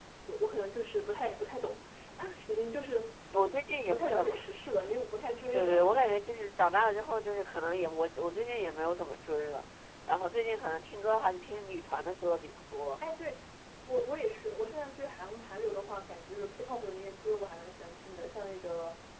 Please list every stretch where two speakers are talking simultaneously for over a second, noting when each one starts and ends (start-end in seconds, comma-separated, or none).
none